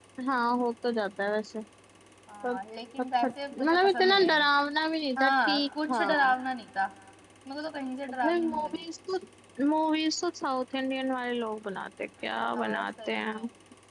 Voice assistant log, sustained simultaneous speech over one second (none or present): present